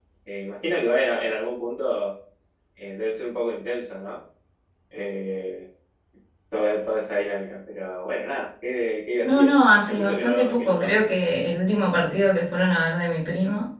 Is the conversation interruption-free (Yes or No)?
No